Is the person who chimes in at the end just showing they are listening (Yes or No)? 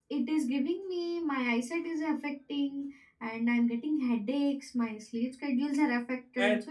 No